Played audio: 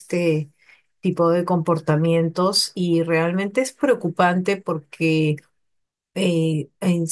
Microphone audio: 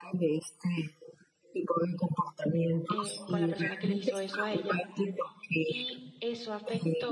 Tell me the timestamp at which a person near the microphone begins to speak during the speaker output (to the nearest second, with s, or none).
3 s